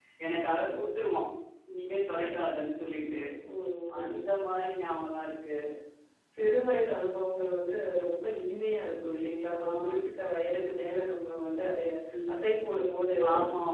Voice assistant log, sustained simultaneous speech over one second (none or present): none